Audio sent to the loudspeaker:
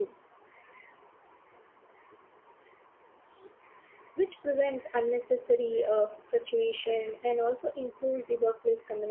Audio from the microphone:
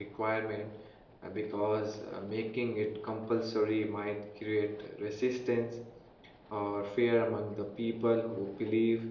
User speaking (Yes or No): Yes